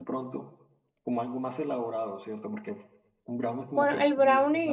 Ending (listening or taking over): taking over